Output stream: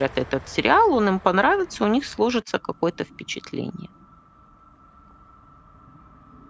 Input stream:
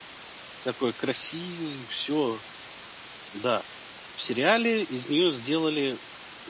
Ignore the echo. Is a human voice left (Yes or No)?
Yes